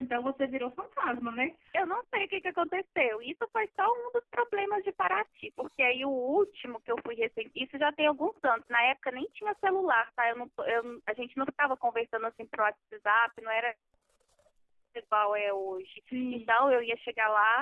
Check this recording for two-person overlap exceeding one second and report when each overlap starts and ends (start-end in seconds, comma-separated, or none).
none